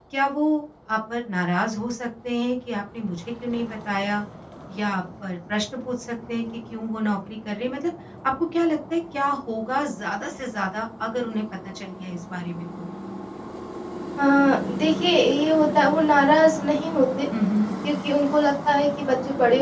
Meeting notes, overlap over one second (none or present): none